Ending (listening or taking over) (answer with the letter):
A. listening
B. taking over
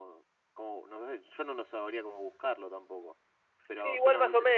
B